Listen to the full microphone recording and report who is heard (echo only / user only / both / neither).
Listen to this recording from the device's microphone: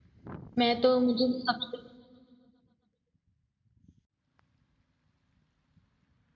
user only